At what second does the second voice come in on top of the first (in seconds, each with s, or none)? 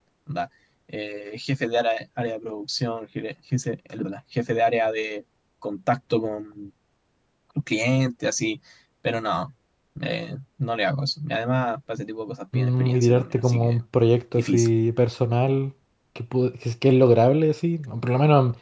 12.5 s